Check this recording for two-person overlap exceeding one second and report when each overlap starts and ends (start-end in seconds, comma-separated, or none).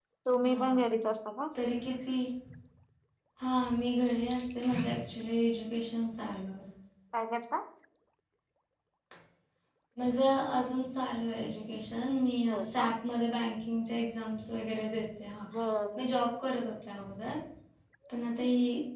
none